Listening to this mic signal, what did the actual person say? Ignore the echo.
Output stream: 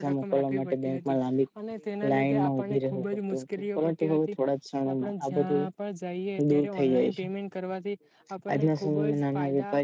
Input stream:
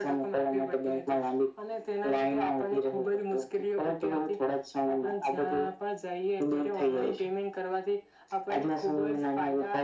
none

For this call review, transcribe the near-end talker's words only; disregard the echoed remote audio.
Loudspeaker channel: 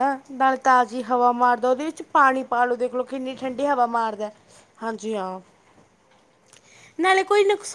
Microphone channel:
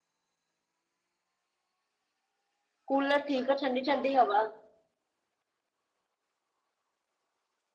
ਕੂਲਰ ਠੀਕ ਆ ਠੰਡੀ ਠੰਡੀ ਹਵਾ

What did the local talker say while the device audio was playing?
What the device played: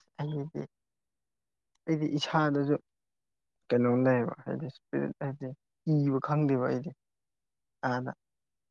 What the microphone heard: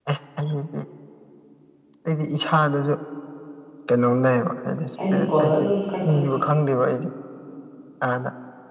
ꯑꯩꯅ ꯀꯣꯜ ꯑꯗꯨꯝ ꯀꯛ ꯊꯠꯄ

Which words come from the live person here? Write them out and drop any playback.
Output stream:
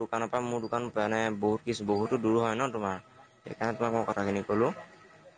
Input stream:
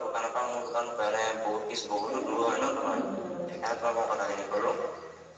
আপুনি এনেই কাপোৰবোৰ কেতিয়া নিবহি বাৰু।

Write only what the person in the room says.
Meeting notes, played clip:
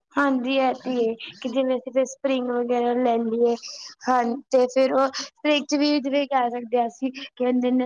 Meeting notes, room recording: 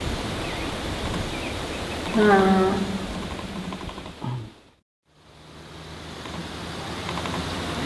ਹਾਂ

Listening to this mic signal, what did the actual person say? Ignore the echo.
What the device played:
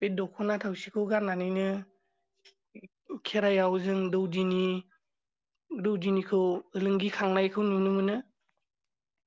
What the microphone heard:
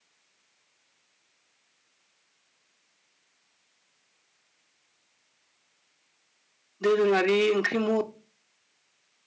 दोरोङारि ओंख्रि म

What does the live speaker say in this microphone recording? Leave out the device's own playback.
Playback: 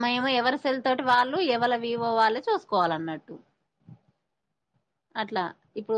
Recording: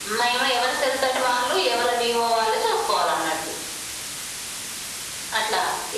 none

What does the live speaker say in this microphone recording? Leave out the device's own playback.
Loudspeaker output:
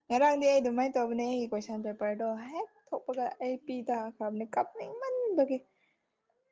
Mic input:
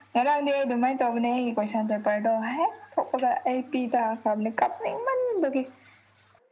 none

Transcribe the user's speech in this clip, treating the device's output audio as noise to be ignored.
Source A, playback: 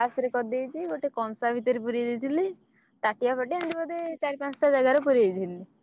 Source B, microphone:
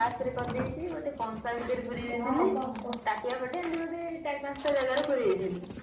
ଯାହା ହବ ହବ

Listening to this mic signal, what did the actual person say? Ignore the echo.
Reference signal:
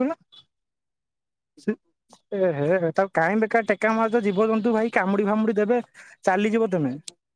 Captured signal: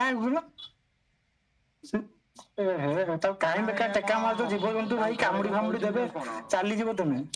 କାହ୍ନା ଭାଇପା କଣ, ତାଙ୍କୁ ଘରେ କଣ କହିଚନ୍ତି ତାକୁ କଣ?

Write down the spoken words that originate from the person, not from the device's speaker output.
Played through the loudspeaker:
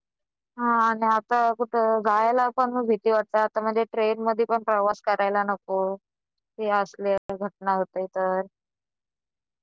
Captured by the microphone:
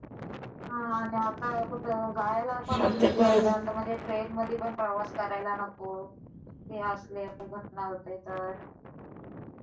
मग ते ब

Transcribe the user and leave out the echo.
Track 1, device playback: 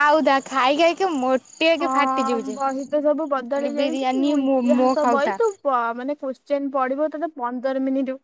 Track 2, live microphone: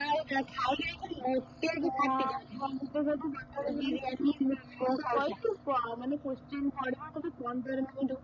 none

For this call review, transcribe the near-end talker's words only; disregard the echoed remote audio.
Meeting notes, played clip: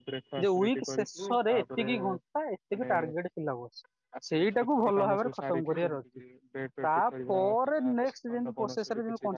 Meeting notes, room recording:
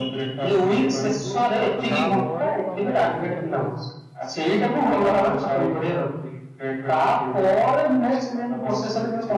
ତାପରେ କଣ କରେ ଯେ ଖାଲି

